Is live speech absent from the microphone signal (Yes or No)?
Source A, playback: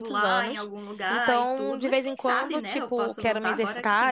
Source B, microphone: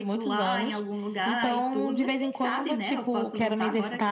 Yes